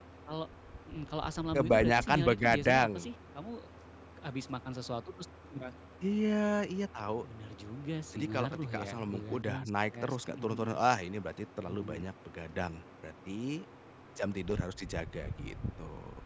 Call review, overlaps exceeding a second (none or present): present